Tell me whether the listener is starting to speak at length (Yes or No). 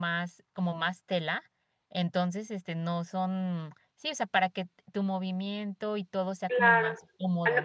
Yes